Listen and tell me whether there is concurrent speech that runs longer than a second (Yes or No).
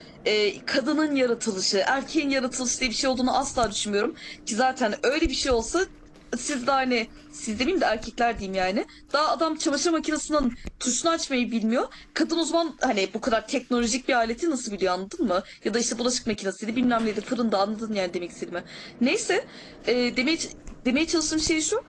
No